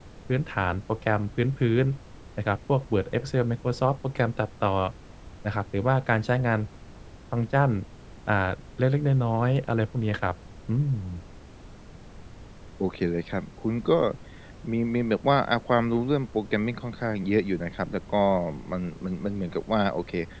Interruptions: none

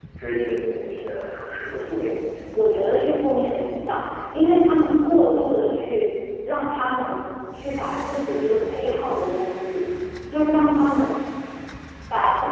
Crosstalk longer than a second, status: none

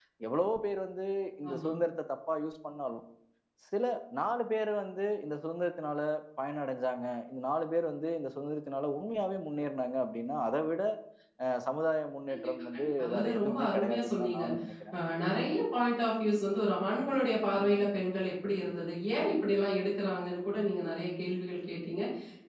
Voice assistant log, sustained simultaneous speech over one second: present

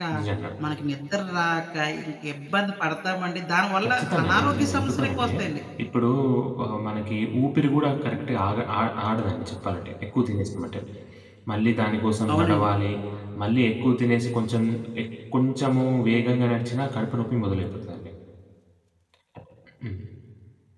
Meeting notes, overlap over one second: present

